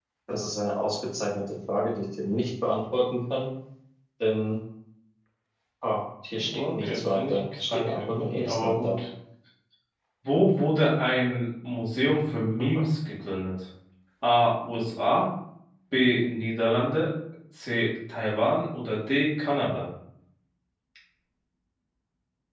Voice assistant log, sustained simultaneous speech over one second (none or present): present